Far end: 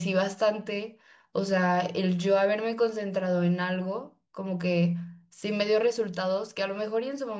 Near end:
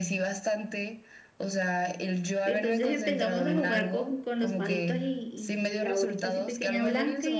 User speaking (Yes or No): Yes